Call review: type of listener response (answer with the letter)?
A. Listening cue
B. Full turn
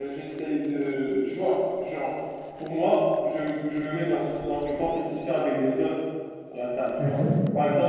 A